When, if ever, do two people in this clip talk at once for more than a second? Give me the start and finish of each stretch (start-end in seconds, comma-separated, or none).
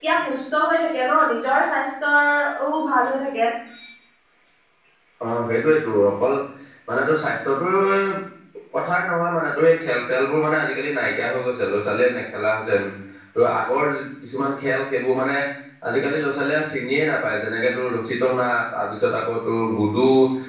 none